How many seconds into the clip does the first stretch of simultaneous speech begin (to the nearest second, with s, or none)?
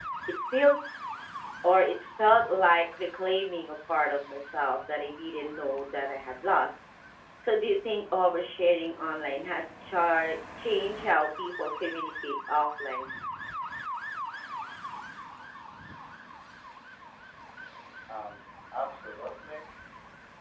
none